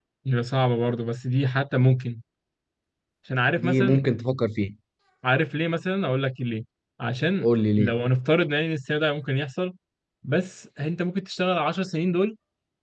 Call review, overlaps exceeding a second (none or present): none